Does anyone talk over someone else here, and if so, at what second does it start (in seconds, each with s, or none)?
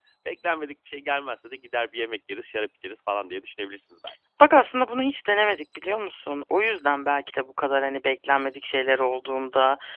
none